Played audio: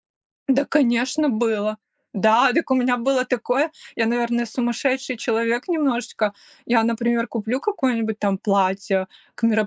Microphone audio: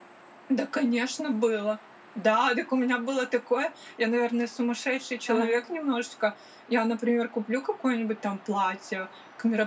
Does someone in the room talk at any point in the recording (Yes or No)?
Yes